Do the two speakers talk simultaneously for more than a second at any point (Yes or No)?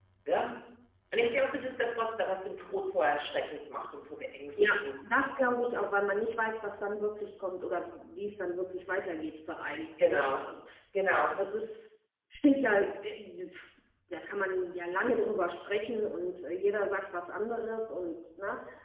No